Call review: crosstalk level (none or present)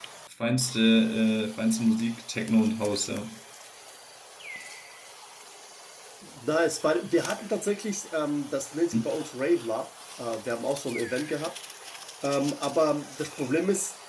none